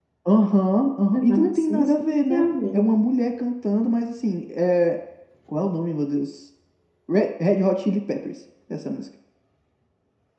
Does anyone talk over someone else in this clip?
Yes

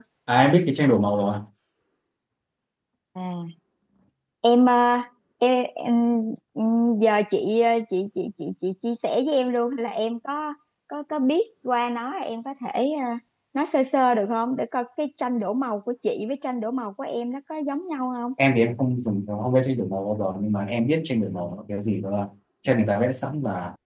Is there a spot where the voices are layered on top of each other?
No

